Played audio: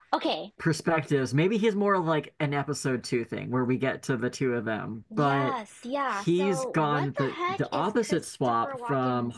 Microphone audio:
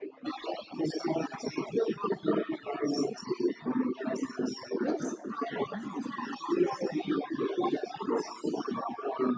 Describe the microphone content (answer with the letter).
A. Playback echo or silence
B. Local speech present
B